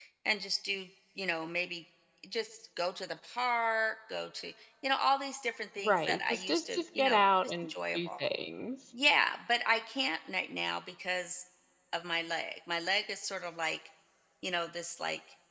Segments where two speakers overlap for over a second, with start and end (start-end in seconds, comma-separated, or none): 5.8-8.3